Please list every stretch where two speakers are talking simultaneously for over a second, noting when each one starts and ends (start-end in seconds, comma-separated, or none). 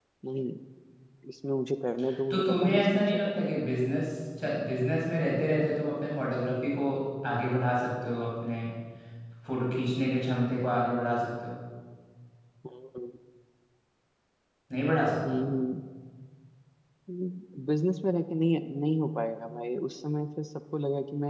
2.3-3.5